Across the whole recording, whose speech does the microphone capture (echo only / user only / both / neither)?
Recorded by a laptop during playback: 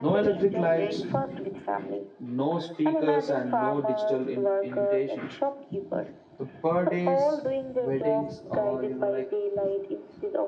both